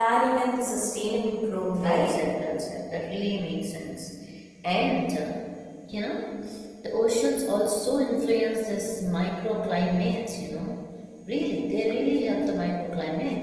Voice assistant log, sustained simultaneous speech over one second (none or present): none